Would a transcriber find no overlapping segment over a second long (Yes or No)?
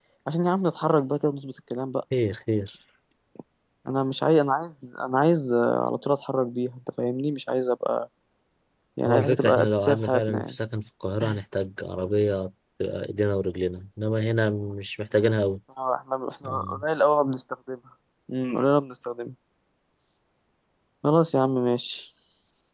No